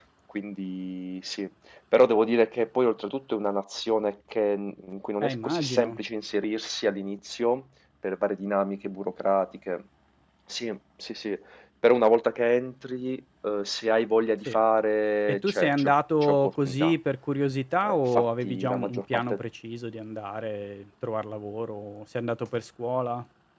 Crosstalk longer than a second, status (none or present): present